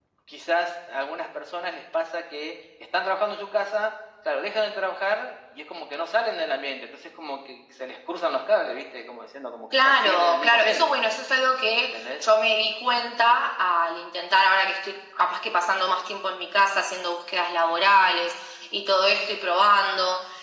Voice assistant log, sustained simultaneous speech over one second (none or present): present